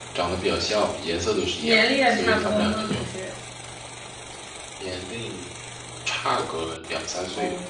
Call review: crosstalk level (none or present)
present